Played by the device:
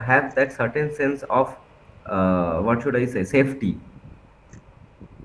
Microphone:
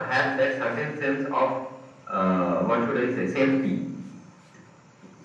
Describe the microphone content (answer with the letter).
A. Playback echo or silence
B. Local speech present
A